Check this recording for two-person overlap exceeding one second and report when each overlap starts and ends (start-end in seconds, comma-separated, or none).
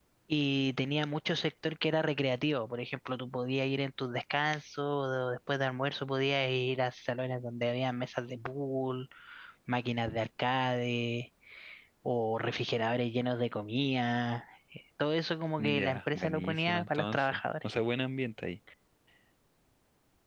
15.6-17.4